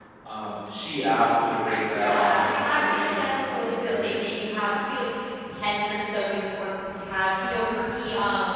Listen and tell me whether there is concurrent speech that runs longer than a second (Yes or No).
Yes